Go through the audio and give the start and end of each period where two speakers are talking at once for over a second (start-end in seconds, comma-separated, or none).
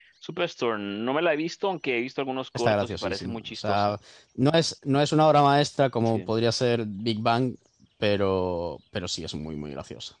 2.5-3.9